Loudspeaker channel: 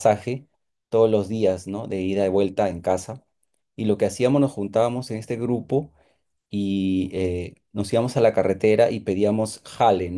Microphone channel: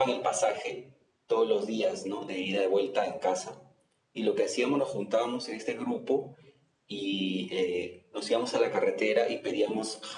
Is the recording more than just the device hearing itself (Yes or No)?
No